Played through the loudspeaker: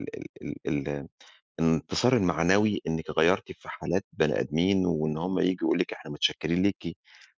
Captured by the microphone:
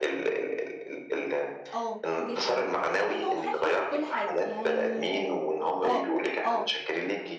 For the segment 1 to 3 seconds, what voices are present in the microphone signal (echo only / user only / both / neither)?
both